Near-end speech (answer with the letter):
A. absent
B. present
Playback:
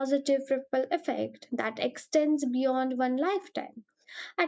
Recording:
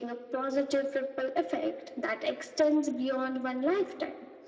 A